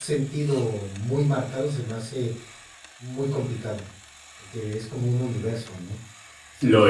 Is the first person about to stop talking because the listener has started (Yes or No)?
No